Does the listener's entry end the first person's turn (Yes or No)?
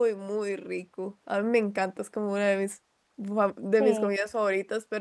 No